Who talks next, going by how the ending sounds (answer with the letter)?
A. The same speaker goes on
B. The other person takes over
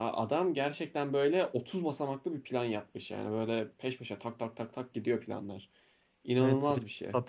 B